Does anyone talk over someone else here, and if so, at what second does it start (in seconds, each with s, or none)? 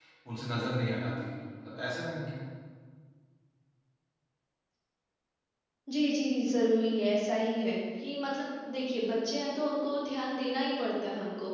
none